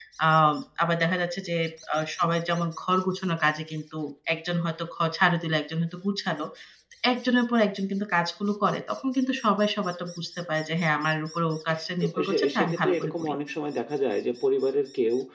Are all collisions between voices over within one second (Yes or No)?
No